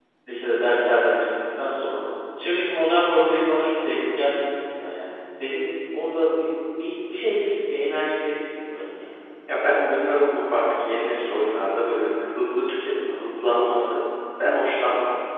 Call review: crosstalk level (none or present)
none